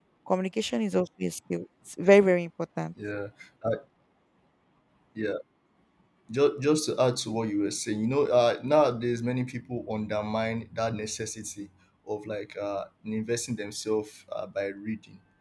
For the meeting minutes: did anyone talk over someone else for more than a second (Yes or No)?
No